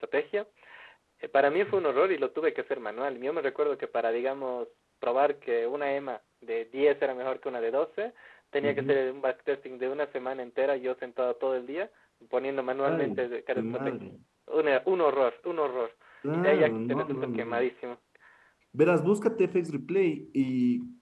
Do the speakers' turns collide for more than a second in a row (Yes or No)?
Yes